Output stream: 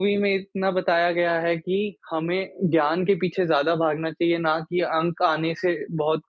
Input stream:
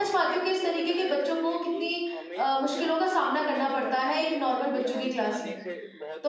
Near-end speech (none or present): present